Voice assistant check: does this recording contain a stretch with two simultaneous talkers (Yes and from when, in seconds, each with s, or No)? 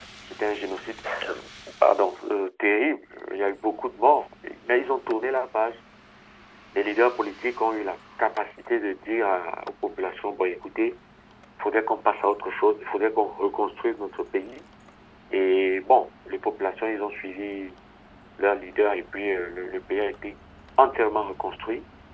No